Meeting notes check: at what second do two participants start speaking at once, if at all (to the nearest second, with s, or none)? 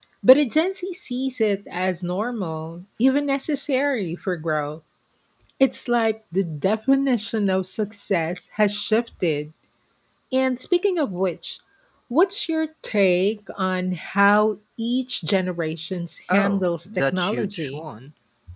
16 s